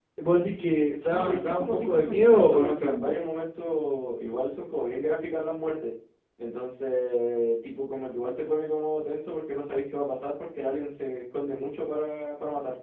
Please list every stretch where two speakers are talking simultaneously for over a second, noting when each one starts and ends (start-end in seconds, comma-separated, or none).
0.9-3.1